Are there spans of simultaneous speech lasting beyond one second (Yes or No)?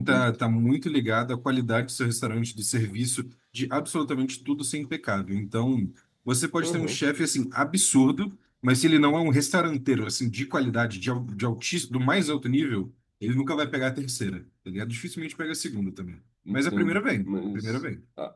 Yes